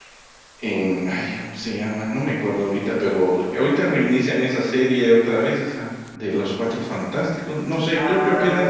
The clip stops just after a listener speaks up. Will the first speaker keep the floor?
No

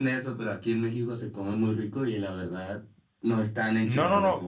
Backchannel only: No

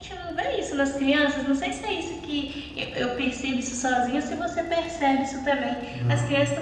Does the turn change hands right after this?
No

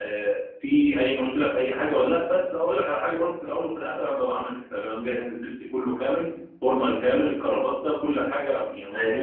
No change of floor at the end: Yes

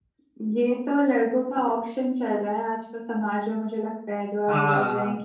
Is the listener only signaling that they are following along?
Yes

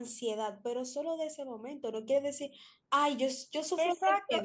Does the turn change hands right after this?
Yes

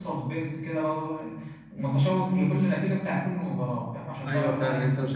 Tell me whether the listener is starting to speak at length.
Yes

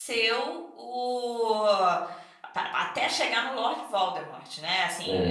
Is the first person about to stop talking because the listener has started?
No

